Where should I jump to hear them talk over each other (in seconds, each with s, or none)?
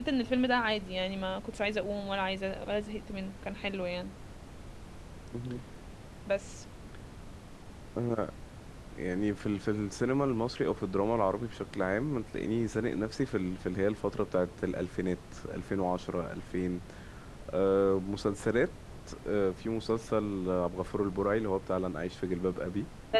none